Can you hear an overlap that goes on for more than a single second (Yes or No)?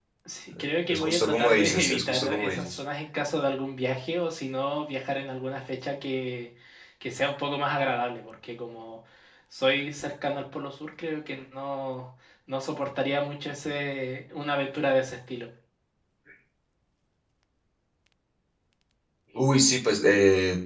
Yes